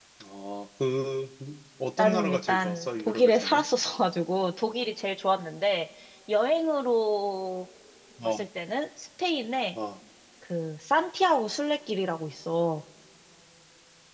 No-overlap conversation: No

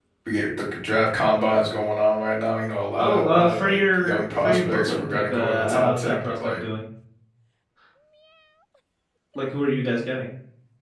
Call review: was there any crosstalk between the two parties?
Yes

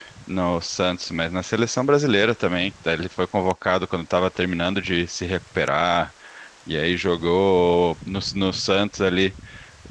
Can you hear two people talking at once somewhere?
No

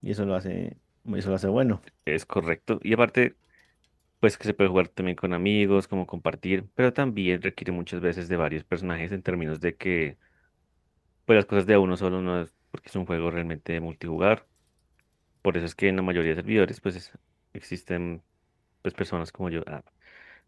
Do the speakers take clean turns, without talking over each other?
Yes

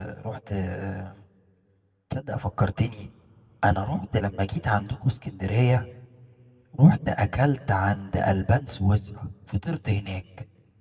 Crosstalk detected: No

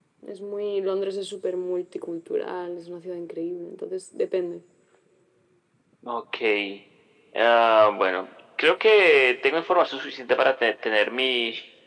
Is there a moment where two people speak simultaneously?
No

